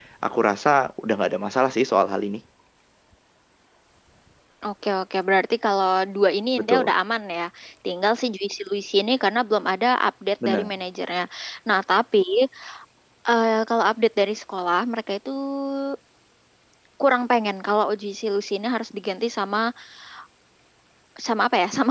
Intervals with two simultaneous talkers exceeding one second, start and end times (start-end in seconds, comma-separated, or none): none